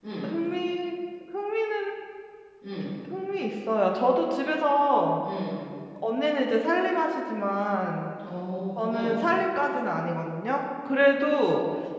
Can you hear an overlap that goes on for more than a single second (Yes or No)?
No